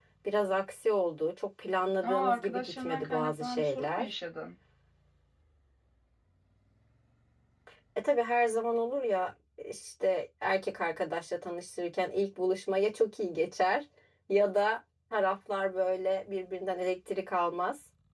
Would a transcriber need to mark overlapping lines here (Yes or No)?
Yes